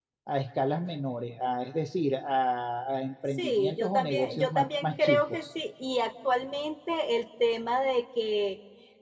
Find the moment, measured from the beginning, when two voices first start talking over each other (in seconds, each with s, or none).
3.4 s